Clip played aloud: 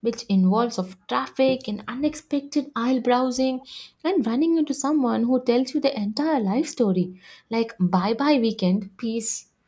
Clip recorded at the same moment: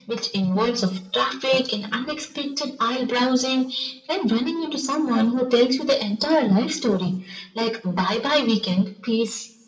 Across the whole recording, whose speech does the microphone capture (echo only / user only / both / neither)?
echo only